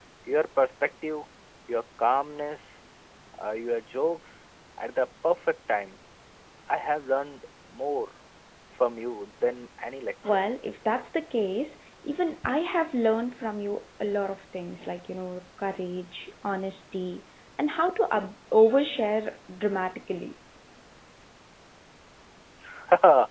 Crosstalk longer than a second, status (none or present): none